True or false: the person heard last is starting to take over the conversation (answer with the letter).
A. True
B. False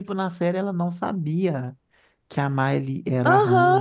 A